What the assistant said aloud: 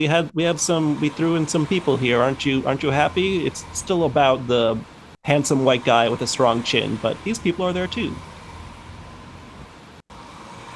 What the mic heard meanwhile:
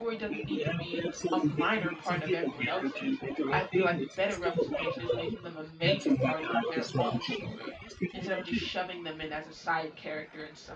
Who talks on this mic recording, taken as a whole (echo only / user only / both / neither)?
both